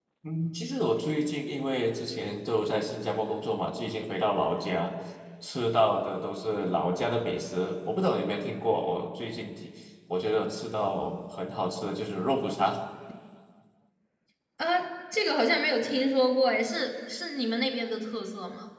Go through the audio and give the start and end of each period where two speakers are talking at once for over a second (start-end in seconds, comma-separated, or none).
none